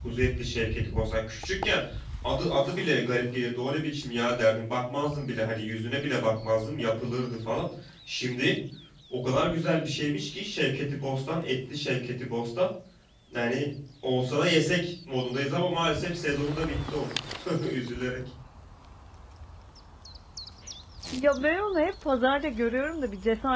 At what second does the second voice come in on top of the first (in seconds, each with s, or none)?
none